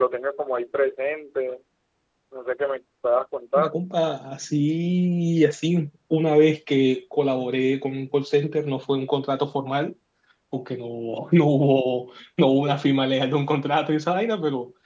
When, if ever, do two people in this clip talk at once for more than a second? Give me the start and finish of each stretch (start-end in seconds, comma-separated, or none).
none